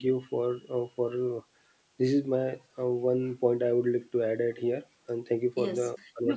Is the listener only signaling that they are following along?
No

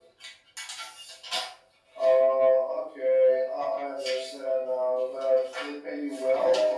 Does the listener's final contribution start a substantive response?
Yes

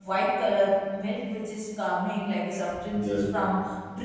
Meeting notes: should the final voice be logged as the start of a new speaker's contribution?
No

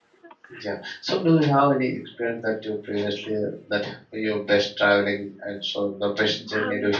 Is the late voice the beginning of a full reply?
Yes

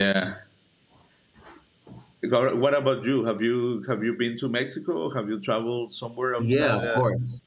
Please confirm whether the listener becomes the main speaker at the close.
Yes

